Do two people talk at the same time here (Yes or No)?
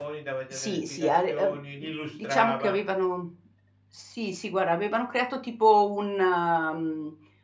Yes